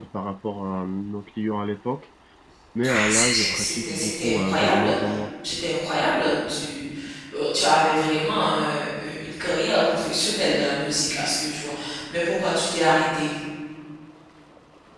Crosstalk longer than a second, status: present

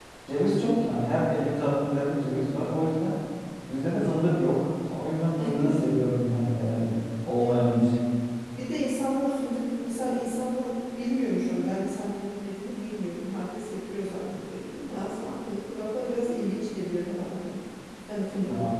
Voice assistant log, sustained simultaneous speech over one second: none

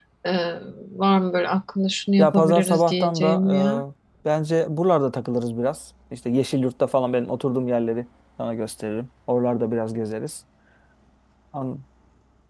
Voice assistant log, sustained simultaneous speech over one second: present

